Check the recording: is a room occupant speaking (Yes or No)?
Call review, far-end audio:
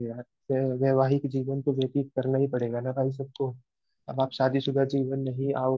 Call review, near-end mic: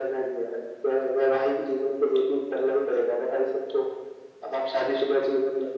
No